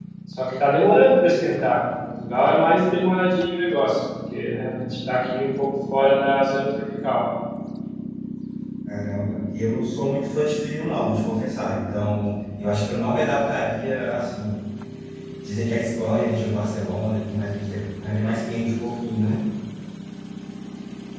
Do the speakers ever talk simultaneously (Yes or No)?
No